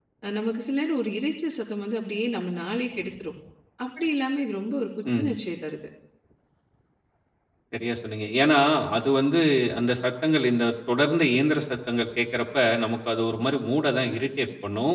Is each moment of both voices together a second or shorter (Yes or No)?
Yes